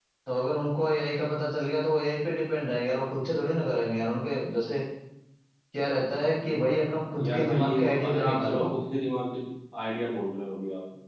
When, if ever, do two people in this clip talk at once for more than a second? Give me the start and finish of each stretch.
7.2-8.6

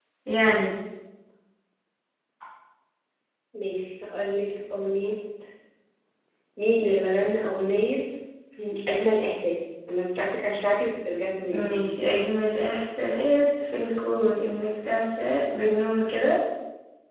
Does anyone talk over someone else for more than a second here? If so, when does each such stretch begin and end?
none

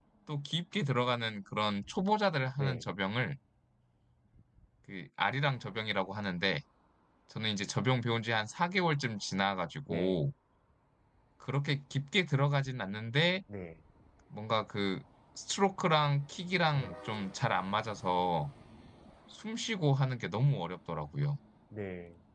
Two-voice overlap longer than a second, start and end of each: none

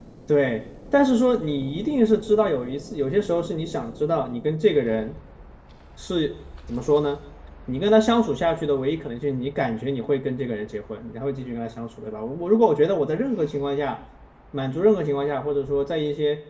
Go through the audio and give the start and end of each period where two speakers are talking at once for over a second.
none

